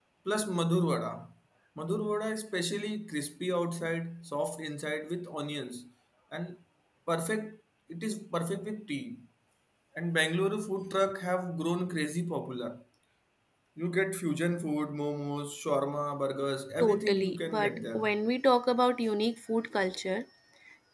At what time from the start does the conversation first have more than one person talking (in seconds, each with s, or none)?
16.7 s